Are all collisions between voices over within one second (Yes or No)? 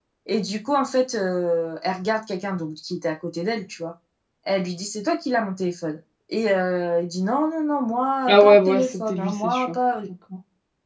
No